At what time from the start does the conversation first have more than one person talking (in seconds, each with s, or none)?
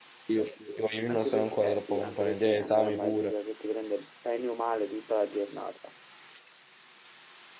1.1 s